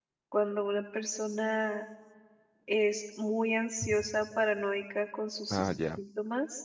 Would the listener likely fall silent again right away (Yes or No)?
Yes